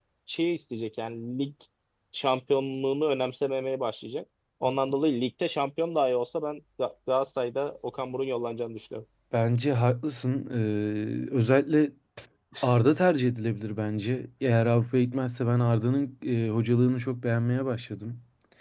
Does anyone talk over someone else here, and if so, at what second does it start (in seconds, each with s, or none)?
none